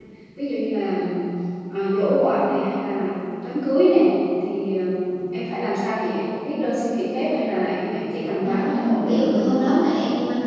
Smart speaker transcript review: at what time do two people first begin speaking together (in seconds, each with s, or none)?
8.4 s